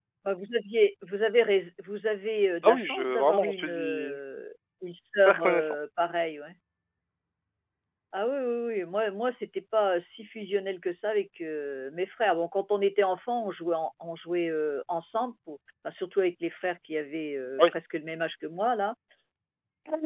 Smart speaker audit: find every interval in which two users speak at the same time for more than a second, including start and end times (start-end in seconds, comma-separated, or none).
2.6-4.2